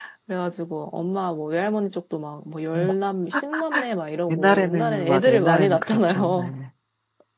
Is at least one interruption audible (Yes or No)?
Yes